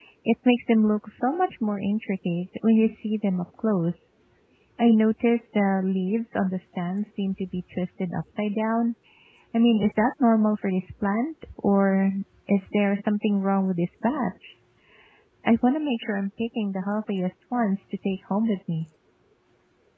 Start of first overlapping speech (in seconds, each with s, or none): none